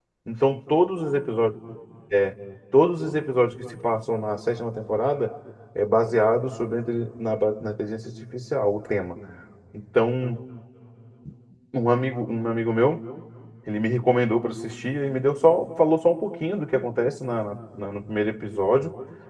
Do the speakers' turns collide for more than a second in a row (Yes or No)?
No